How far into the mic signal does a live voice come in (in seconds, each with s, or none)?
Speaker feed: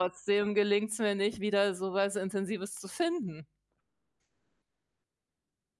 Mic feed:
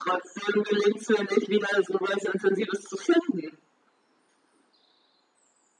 none